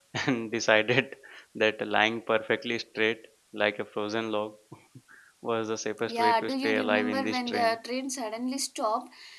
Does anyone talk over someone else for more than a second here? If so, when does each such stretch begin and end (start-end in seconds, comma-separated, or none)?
6.1-7.8